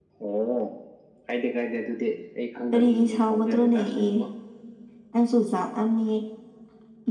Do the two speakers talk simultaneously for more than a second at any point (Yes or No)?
Yes